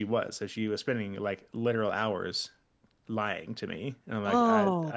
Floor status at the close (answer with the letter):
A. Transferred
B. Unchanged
A